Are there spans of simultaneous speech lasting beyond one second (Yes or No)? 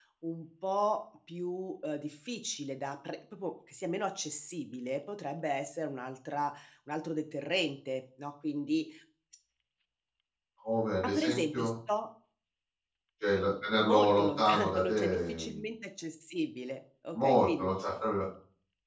Yes